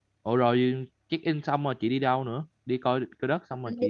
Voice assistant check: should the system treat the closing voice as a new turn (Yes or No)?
Yes